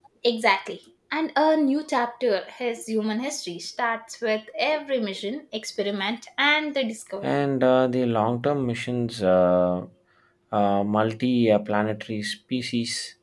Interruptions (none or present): none